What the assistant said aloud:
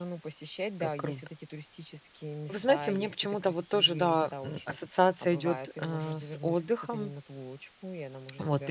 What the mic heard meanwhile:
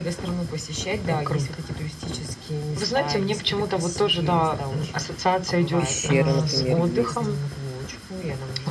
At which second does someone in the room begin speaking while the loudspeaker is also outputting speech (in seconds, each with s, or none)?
5.8 s